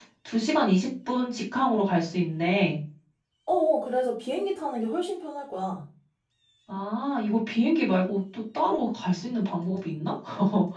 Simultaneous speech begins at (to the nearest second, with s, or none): none